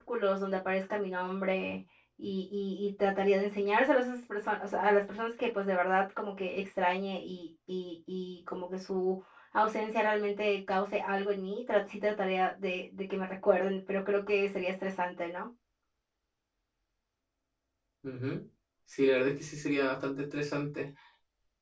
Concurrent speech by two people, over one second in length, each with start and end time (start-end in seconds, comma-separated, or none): none